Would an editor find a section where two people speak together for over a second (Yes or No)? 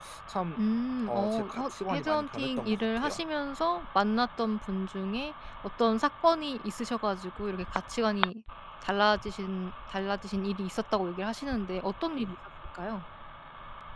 Yes